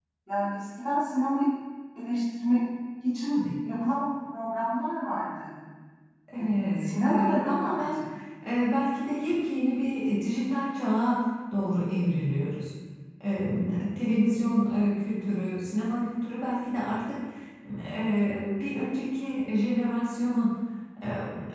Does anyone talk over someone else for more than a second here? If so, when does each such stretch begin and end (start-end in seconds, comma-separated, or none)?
6.8-8.0